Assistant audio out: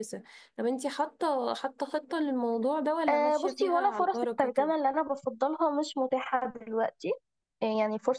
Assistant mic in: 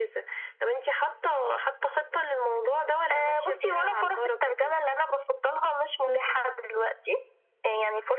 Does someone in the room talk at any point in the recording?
Yes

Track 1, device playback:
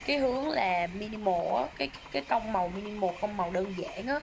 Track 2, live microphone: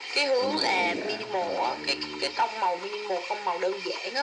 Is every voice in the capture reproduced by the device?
No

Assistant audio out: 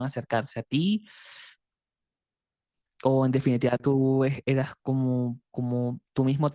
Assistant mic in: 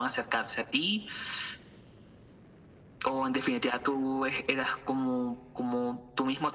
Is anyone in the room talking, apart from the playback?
No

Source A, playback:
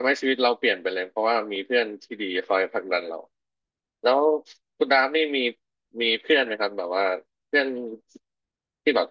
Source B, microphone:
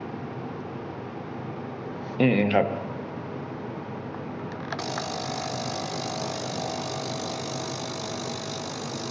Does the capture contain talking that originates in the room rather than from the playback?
Yes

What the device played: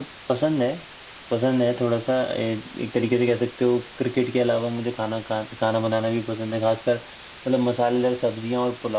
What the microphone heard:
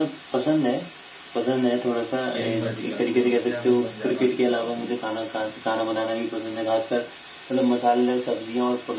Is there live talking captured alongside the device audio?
Yes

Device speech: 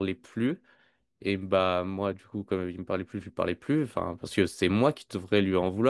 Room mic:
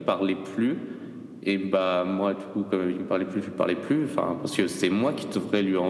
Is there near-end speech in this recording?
No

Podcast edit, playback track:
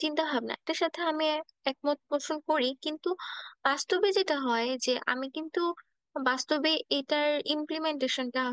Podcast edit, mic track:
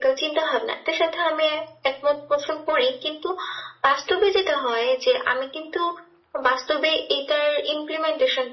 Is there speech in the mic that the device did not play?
No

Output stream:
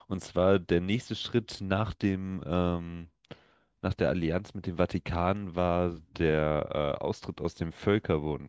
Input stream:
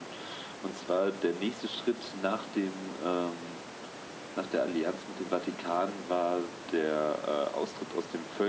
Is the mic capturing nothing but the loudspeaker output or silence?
Yes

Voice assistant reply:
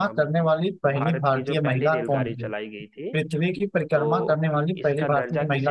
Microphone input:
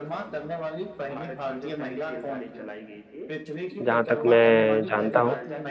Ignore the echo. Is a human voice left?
Yes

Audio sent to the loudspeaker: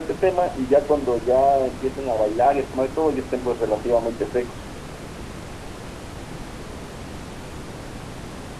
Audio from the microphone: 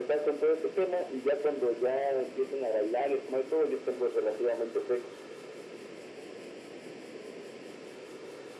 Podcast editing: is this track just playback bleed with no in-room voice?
Yes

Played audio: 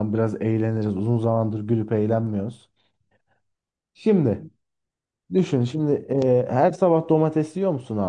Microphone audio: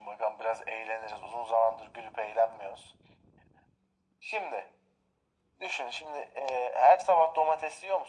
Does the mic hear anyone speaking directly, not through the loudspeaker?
No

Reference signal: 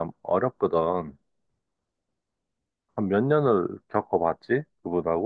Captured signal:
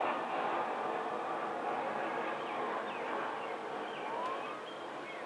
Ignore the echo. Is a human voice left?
No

